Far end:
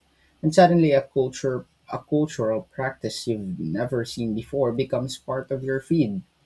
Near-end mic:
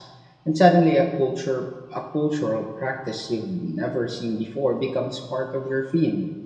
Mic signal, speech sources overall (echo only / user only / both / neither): echo only